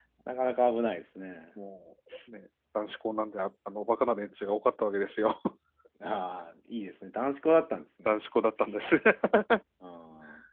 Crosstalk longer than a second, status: none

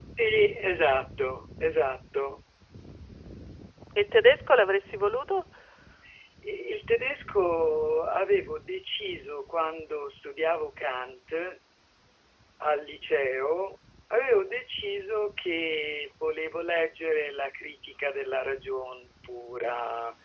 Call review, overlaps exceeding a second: none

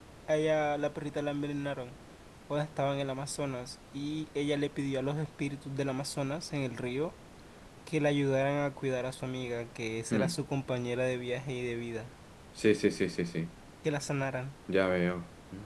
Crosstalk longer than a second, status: none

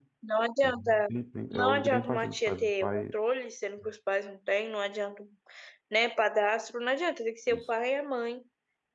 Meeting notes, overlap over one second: present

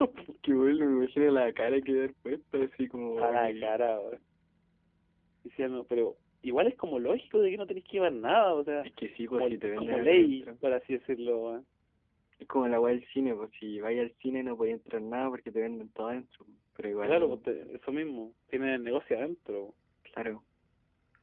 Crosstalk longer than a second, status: present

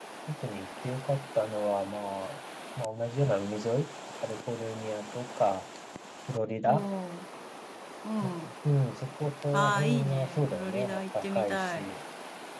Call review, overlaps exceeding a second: present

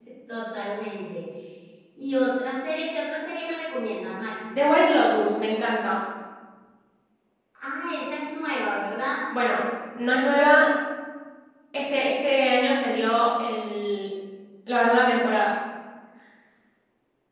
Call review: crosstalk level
none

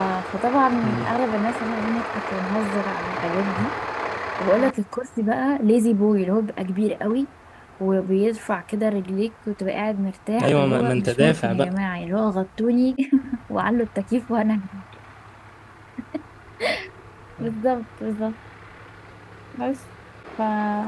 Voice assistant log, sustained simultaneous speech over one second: present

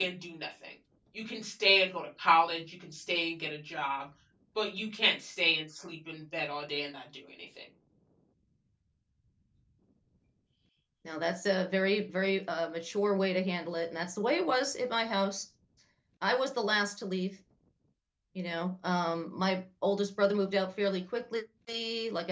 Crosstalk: none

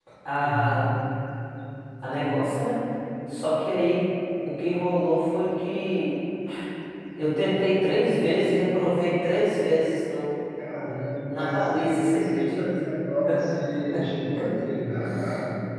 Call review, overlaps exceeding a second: present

